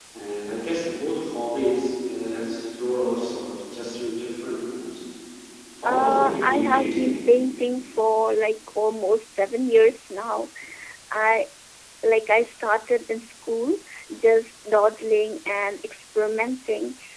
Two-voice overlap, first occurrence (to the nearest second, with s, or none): 6 s